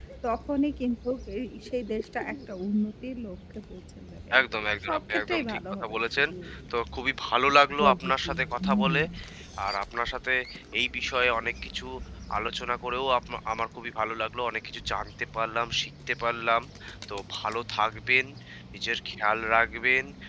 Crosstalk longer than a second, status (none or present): present